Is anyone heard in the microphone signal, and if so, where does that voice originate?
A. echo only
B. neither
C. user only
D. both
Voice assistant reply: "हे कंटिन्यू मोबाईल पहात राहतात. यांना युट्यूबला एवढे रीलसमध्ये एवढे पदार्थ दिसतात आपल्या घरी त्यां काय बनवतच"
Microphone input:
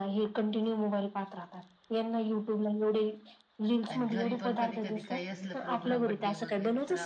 D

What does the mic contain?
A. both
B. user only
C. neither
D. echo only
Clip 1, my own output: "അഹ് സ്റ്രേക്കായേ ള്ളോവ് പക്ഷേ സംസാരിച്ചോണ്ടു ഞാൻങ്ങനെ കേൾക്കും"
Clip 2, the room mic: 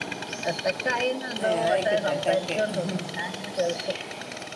A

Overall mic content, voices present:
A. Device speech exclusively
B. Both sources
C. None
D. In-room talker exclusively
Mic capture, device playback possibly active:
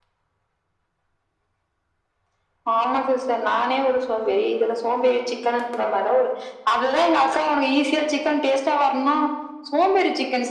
A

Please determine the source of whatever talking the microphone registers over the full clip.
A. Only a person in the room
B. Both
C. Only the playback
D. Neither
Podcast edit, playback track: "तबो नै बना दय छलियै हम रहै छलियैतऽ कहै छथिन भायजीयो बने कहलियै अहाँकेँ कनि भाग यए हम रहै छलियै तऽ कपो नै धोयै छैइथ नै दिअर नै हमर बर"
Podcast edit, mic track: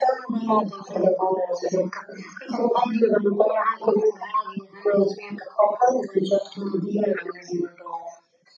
C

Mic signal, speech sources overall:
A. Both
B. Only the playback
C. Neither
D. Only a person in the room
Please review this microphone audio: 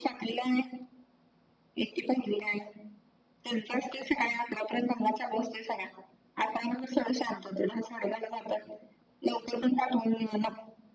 B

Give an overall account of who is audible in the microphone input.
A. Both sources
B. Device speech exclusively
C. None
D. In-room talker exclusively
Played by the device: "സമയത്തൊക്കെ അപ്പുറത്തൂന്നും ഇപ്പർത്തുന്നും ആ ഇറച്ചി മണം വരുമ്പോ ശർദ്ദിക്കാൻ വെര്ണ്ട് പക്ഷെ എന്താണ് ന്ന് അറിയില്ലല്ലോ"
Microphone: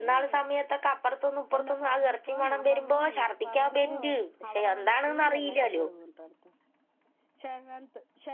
A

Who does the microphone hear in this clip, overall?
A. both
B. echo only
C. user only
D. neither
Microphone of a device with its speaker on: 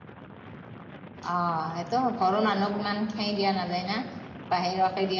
C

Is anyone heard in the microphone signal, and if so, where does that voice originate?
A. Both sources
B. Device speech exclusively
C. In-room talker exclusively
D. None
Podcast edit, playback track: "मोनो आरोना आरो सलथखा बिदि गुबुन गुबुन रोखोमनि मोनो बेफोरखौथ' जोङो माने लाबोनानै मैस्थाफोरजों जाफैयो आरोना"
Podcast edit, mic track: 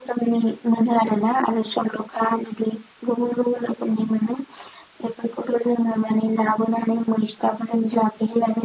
B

